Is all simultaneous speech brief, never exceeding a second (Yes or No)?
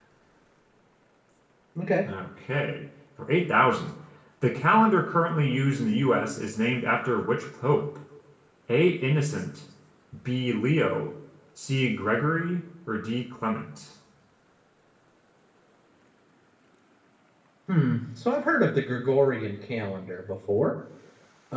Yes